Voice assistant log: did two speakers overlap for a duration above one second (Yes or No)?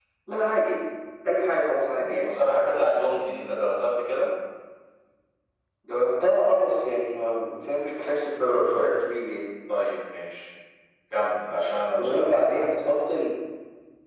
No